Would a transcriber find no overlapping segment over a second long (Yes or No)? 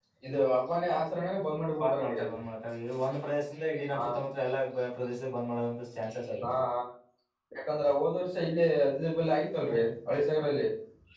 Yes